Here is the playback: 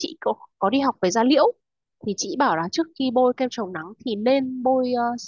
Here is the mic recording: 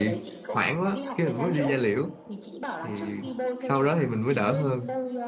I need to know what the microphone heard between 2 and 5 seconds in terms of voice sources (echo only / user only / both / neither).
both